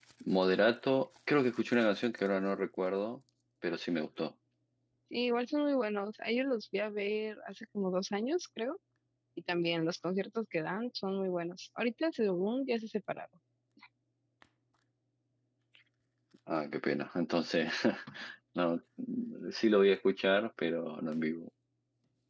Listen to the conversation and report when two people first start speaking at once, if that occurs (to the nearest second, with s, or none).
none